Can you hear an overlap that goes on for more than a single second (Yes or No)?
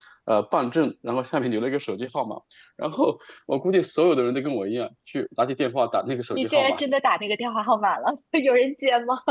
No